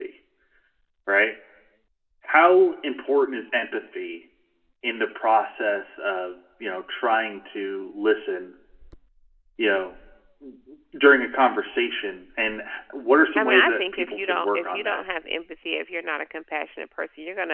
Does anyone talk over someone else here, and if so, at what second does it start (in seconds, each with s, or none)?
13.3 s